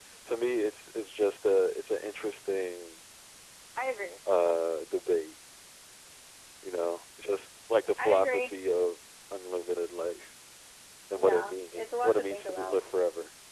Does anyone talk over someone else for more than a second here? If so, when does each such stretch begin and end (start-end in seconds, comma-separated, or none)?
11.1-12.8